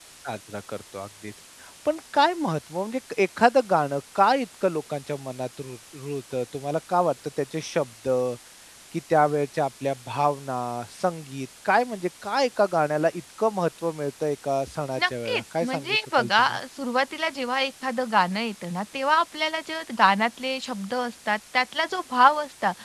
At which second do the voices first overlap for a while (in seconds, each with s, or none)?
15.0 s